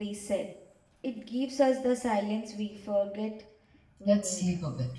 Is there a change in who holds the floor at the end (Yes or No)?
Yes